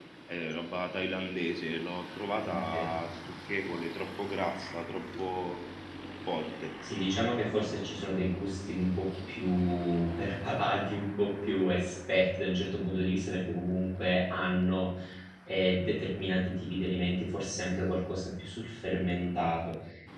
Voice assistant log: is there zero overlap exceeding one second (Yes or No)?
Yes